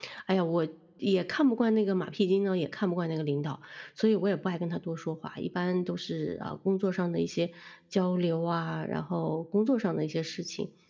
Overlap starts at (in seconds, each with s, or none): none